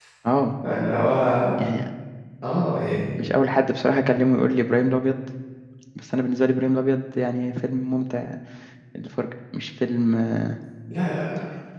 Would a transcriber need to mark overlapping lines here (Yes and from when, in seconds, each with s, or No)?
No